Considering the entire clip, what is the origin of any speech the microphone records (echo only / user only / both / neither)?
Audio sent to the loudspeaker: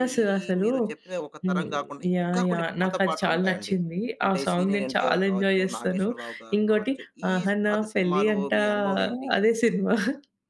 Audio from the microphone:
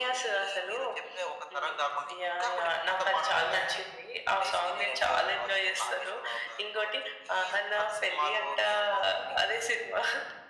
echo only